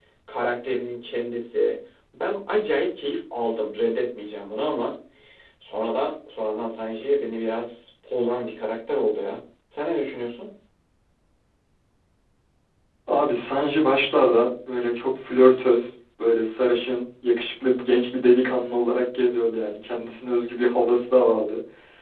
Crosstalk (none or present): none